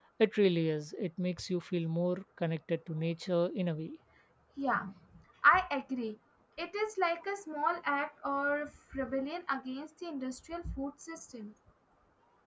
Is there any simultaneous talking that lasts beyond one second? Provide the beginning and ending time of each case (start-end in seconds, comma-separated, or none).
none